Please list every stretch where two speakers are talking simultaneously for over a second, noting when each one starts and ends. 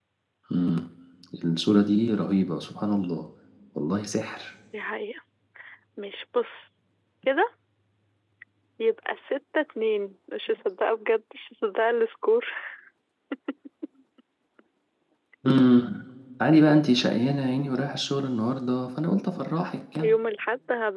none

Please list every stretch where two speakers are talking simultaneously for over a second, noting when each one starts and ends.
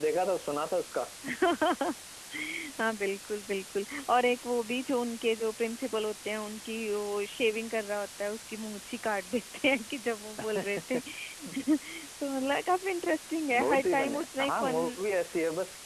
13.5-14.9

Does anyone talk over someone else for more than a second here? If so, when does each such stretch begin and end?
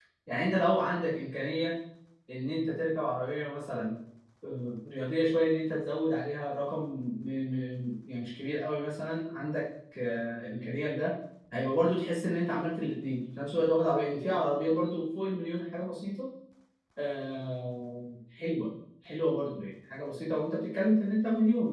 none

